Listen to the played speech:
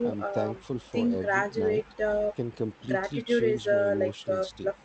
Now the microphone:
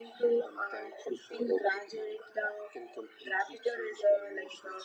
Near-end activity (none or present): none